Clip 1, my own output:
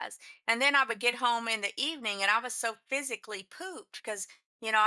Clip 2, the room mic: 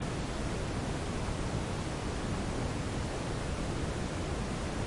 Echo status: none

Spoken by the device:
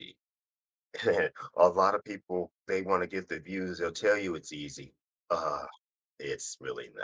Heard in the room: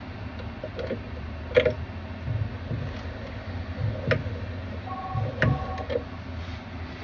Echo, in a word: none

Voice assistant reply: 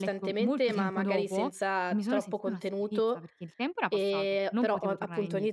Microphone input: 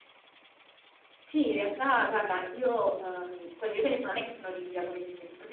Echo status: none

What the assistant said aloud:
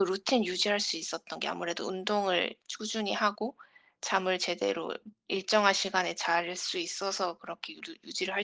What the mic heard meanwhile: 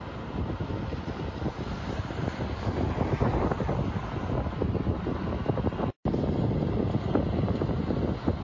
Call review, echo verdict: none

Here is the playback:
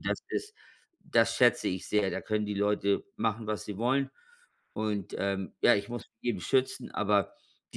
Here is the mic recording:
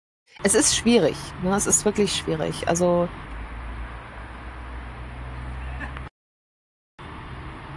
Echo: none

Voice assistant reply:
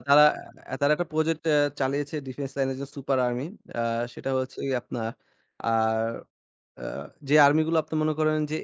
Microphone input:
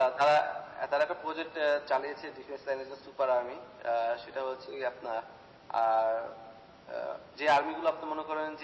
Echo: present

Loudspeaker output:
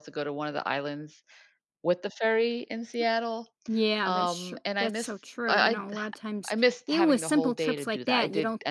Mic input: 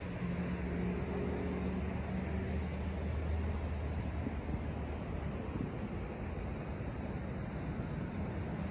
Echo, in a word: none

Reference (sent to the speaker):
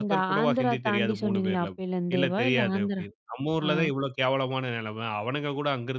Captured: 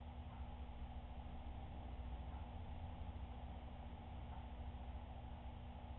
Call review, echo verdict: none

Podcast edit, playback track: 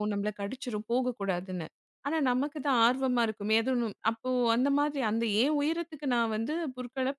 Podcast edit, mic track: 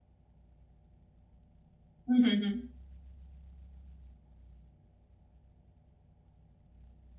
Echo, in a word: none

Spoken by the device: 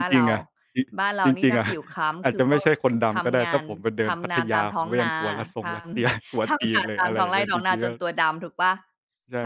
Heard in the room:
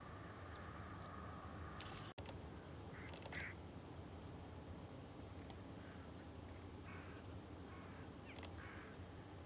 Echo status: none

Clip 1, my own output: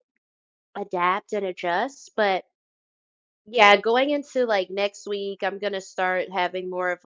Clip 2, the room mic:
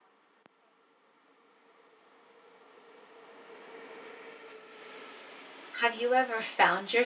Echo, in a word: none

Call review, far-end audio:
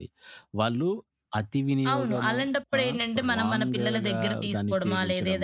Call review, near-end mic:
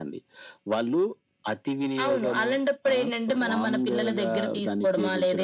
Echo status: present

